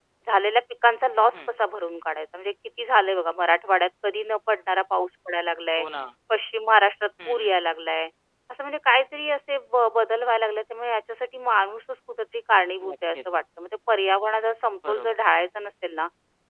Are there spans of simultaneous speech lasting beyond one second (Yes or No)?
No